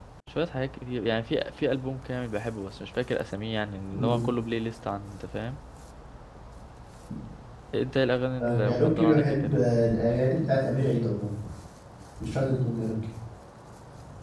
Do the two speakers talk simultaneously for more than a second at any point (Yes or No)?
Yes